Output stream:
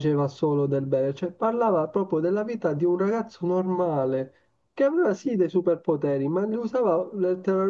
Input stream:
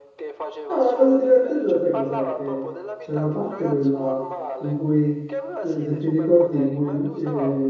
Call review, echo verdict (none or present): present